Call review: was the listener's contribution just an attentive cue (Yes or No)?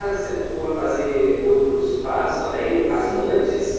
No